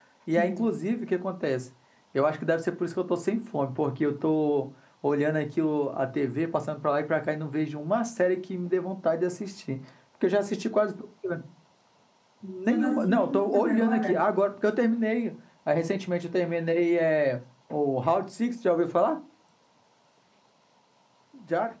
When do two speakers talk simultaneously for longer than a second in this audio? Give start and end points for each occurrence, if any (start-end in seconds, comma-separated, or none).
12.7-14.3